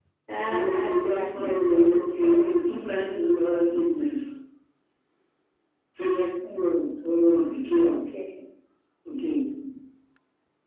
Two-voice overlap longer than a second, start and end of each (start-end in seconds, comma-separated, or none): 0.5-2.6